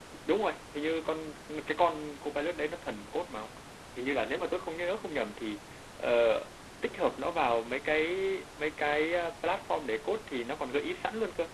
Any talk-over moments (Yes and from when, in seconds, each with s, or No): No